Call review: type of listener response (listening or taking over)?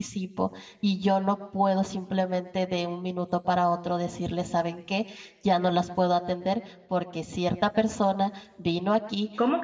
taking over